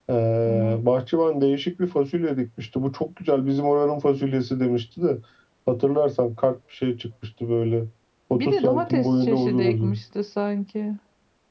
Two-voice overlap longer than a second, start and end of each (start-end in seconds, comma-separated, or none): 8.3-10.0